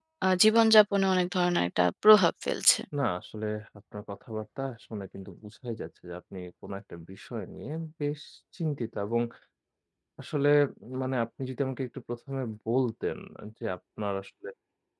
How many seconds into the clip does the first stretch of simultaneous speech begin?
none

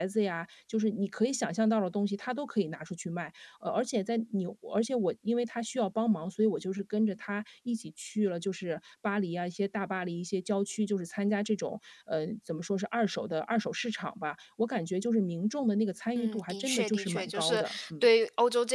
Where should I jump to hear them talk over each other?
16.2 s

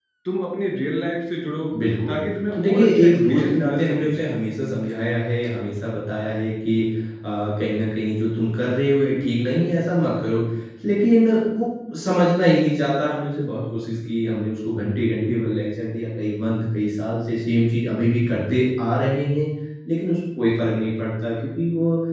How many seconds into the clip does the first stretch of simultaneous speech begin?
2.5 s

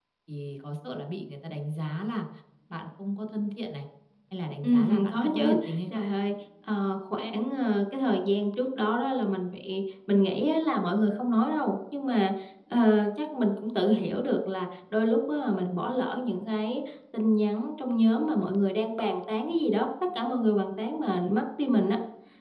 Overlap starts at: 4.6 s

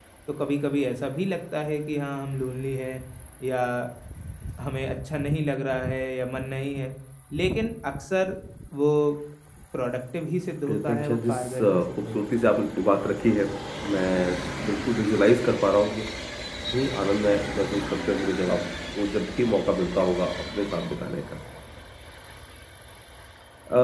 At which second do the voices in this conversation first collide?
10.6 s

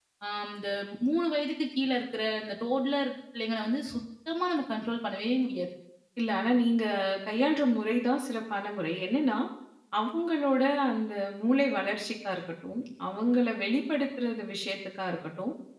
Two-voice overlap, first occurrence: none

